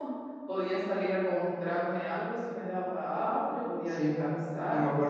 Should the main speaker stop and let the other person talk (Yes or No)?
Yes